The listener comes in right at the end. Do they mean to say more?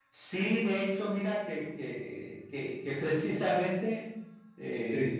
No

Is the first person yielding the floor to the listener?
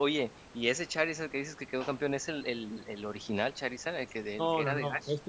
Yes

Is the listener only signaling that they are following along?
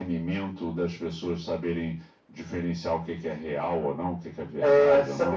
No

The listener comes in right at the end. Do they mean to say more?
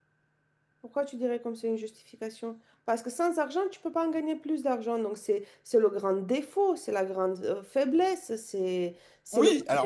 Yes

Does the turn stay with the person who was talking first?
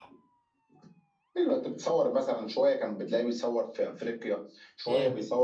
Yes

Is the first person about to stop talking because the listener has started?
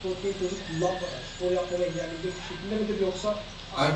Yes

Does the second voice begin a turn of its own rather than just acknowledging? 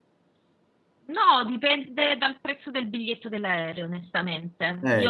No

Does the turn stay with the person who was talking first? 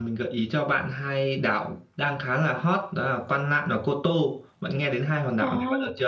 No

